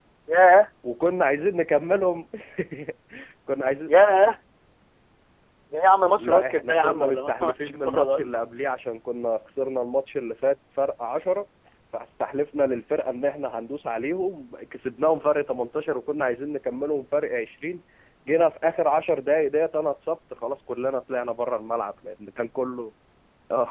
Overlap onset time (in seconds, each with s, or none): 6.2 s